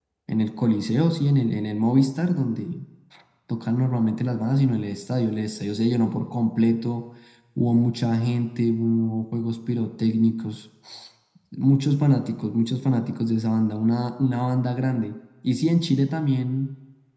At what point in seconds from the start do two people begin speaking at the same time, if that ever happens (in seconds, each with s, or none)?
none